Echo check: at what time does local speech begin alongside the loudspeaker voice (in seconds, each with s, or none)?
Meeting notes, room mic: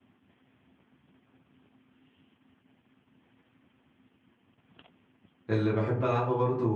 5.5 s